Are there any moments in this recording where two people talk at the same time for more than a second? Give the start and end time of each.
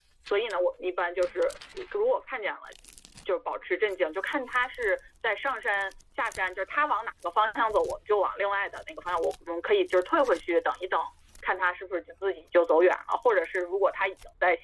none

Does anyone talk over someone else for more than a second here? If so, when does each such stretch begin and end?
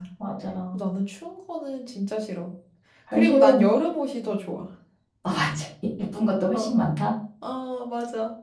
none

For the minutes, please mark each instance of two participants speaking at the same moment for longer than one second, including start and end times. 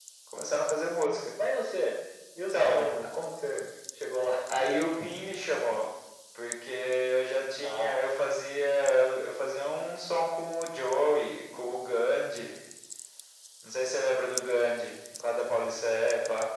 none

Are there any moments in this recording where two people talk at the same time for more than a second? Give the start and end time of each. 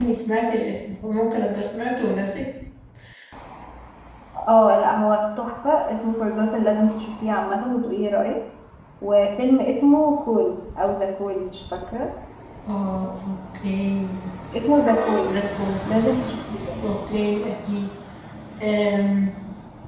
none

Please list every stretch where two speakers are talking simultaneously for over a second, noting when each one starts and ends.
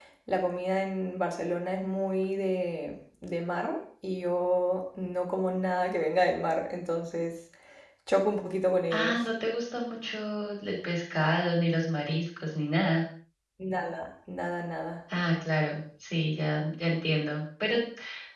none

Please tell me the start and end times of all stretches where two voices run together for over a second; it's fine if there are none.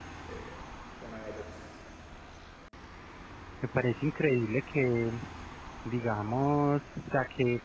none

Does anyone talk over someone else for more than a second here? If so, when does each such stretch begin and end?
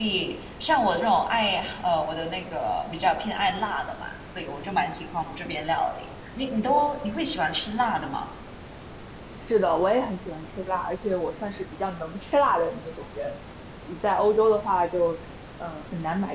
none

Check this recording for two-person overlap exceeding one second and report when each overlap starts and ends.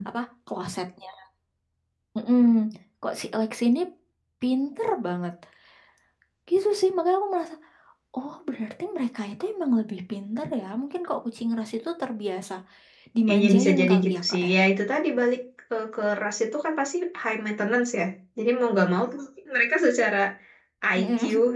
13.3-14.5

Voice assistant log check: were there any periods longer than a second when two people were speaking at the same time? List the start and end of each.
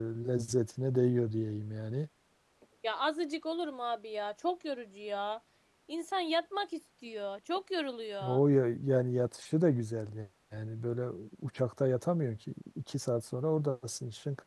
none

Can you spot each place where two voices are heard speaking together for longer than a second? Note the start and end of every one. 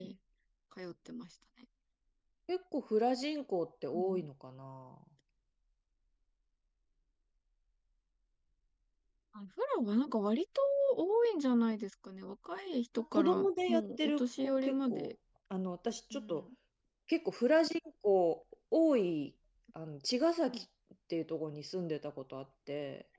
13.1-15.1

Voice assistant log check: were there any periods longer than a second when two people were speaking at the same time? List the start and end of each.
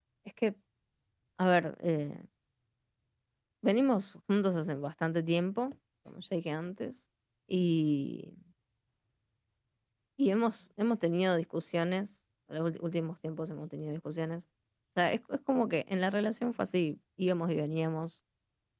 none

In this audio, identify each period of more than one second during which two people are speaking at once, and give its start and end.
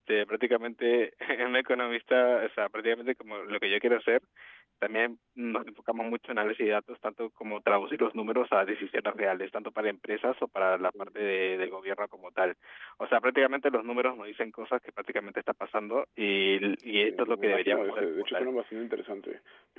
17.1-18.5

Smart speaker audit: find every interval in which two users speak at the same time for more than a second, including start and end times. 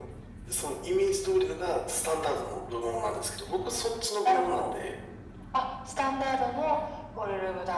none

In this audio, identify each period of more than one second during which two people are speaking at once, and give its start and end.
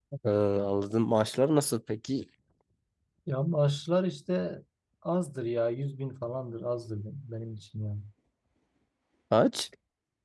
none

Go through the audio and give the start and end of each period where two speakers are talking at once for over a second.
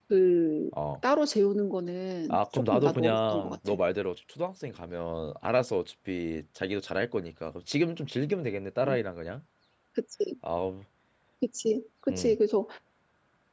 2.3-3.7

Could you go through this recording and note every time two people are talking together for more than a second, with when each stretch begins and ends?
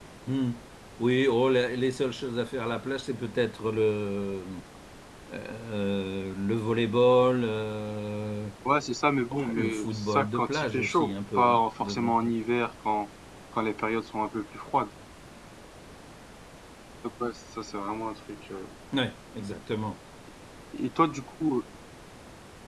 9.2-12.3

